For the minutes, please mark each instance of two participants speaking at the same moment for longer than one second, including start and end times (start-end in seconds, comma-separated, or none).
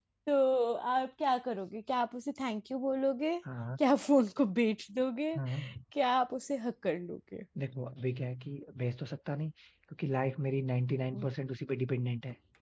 none